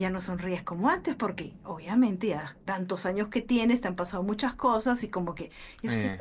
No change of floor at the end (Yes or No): Yes